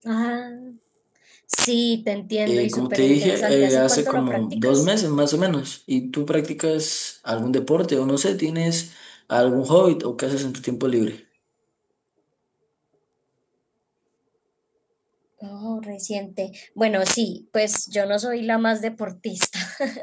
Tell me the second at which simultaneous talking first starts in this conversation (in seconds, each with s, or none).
2.5 s